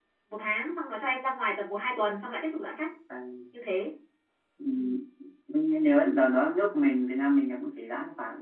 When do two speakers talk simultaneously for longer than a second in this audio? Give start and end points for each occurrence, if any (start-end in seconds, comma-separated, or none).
none